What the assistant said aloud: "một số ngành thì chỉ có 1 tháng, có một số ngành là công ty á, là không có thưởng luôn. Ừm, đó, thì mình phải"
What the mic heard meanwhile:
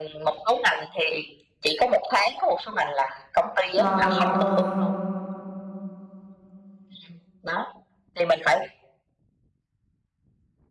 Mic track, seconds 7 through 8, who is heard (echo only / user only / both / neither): echo only